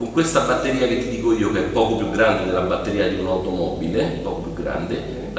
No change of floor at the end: Yes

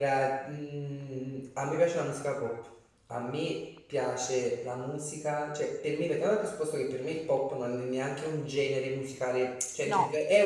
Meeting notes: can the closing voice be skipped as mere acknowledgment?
Yes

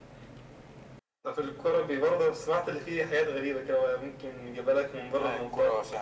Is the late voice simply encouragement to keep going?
No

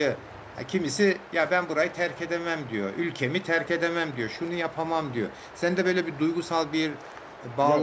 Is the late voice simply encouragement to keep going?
No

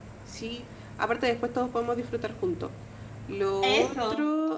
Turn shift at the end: No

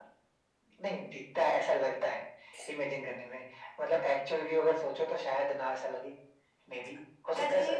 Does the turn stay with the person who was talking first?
No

